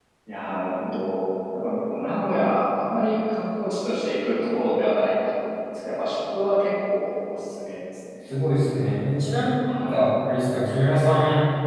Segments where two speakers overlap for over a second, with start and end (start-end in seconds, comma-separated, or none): none